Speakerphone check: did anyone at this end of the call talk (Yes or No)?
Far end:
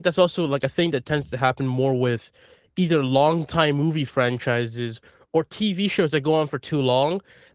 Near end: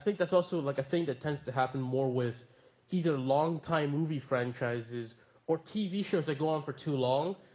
No